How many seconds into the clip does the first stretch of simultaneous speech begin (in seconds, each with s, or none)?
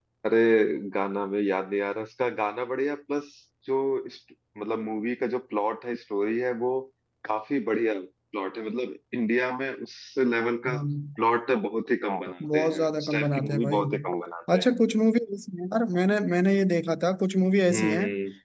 12.4 s